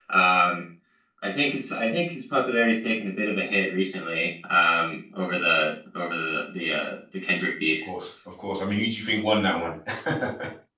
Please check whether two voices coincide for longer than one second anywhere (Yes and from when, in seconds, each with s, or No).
No